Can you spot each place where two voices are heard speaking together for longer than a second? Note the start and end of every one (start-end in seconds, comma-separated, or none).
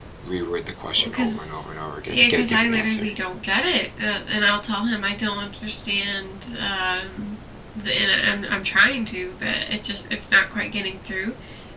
0.9-3.1